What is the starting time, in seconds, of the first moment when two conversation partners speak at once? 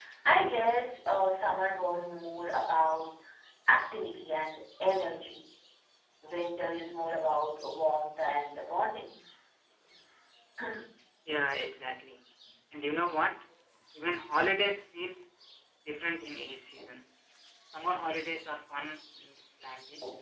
none

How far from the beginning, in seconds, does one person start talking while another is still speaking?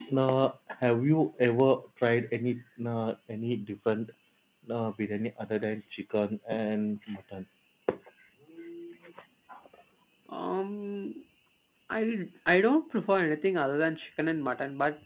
none

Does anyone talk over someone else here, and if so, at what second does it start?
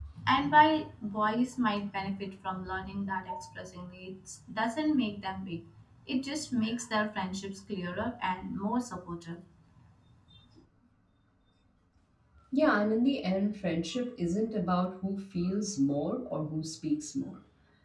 none

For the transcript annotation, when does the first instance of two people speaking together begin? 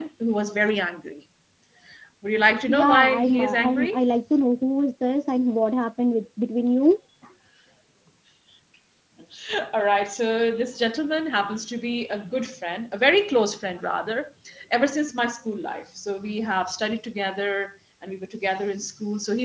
2.7 s

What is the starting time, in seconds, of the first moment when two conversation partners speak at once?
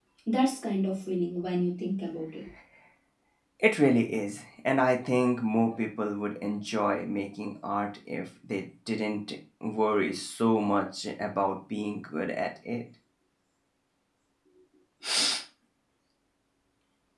none

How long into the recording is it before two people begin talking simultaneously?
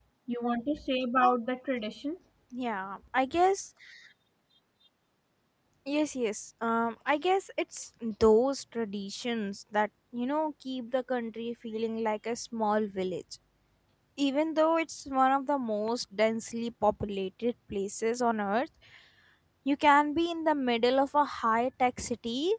none

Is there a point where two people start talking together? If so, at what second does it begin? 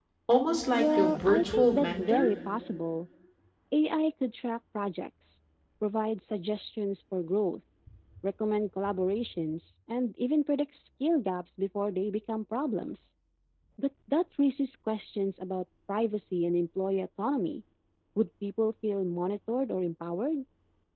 0.7 s

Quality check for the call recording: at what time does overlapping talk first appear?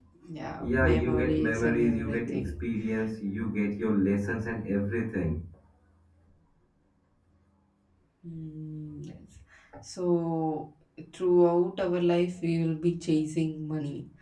0.6 s

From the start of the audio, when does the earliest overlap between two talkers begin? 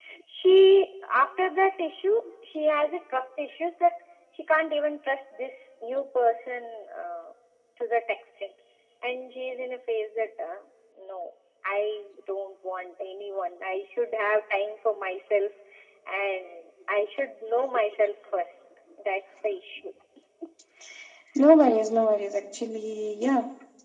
none

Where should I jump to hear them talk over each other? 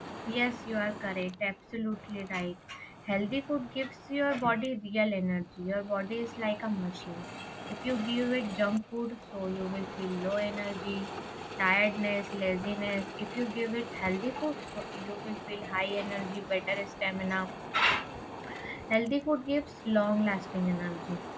none

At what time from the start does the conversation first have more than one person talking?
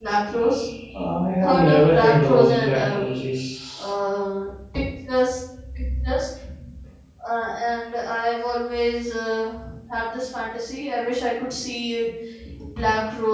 1.4 s

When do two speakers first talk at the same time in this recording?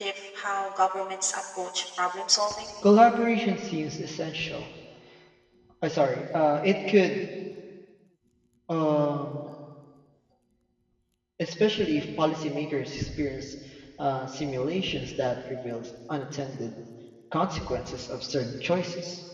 none

